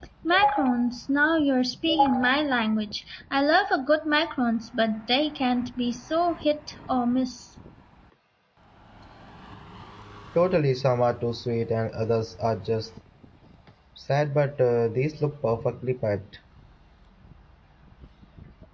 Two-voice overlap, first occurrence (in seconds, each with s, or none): none